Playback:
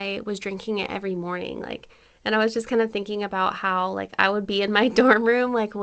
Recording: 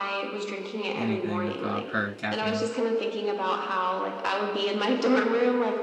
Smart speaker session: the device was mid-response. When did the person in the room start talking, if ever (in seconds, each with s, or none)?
1.0 s